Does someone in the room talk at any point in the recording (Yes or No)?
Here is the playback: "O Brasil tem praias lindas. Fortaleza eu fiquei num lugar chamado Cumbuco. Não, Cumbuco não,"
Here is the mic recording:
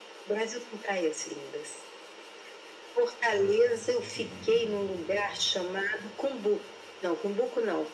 Yes